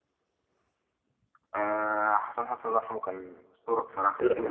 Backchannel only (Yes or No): No